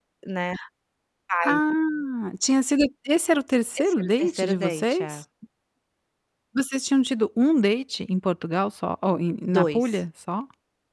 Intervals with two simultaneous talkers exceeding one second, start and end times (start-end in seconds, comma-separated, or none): 3.8-5.2